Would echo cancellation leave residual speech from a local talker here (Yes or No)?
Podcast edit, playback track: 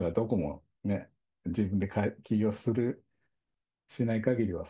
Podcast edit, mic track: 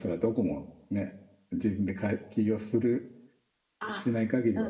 Yes